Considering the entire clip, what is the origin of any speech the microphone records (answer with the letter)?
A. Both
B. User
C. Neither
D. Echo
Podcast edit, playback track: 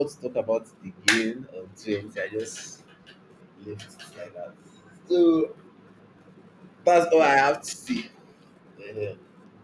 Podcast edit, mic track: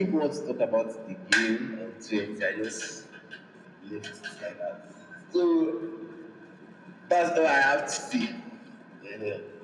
D